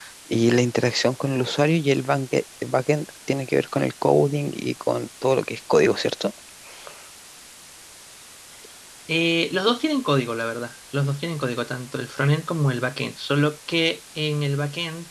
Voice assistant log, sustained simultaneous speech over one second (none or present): none